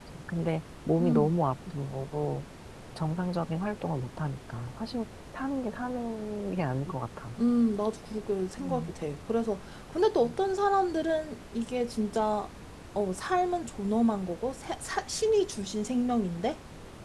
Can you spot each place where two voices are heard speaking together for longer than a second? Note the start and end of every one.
none

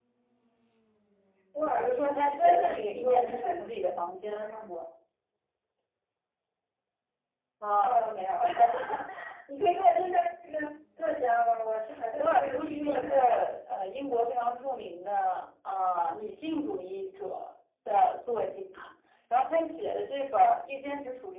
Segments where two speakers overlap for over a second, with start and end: 1.8-4.5, 12.2-13.5

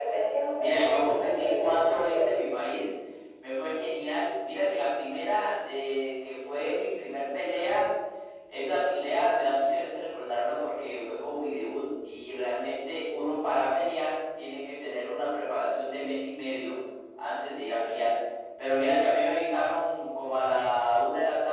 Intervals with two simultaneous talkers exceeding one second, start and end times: 0.6-2.4

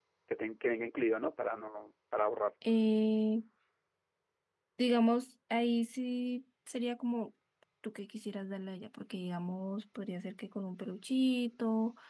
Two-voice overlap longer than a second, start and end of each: none

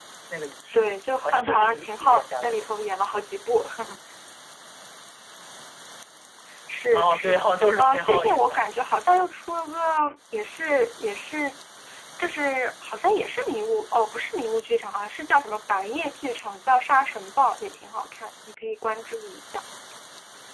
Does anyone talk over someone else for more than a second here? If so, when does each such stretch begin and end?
1.2-2.6, 6.9-8.6

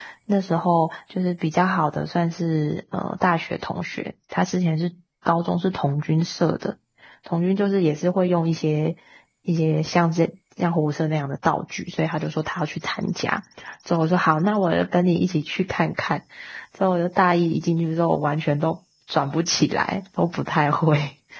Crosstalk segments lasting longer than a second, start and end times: none

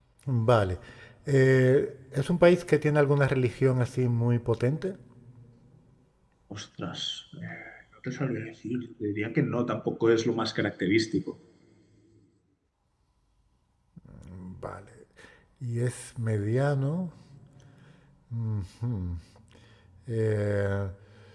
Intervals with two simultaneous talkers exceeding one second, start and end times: none

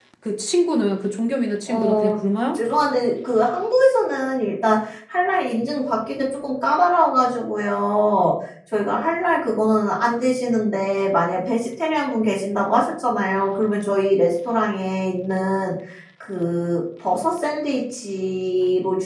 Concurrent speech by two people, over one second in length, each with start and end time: none

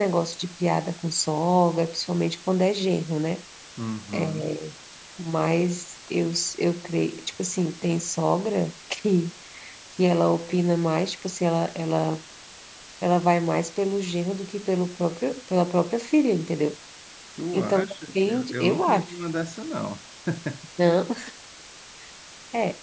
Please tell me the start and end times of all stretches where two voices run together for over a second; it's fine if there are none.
17.5-19.1

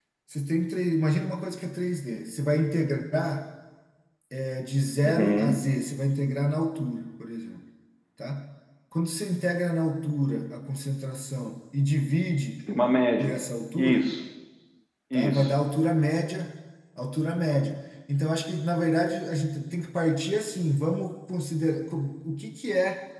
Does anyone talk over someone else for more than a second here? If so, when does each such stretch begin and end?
none

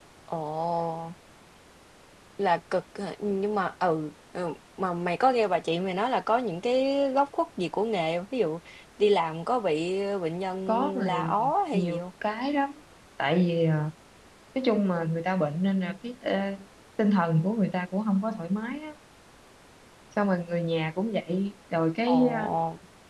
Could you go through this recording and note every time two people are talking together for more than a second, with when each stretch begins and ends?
10.7-12.0

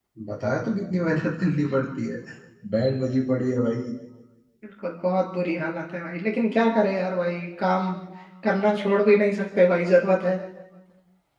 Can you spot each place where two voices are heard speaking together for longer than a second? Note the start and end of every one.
none

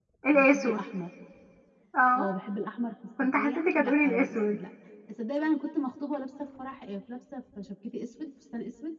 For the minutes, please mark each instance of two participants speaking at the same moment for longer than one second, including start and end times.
3.4-4.6

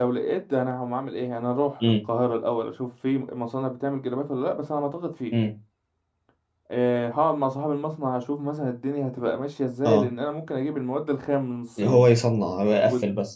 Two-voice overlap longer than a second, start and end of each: none

